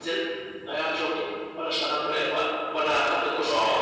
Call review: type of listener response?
taking over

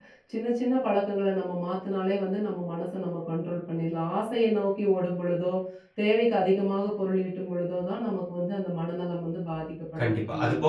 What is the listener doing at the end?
taking over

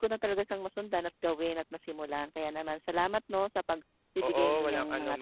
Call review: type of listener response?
taking over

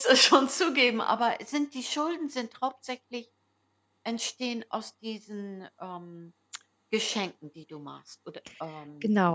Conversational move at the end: taking over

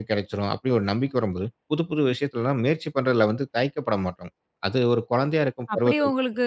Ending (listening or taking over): taking over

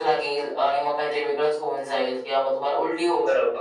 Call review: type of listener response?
taking over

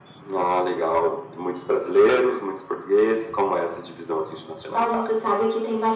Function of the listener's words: taking over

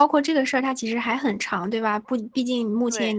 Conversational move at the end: listening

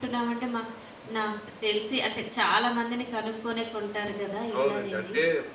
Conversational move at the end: taking over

